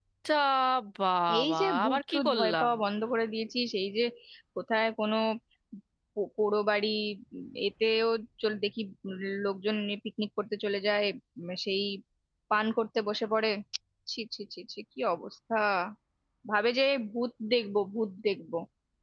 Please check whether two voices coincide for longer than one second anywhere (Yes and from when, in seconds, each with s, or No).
Yes, from 1.4 s